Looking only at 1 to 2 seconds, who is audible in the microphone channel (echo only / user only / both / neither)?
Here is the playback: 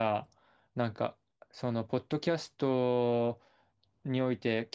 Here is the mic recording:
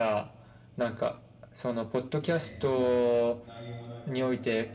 echo only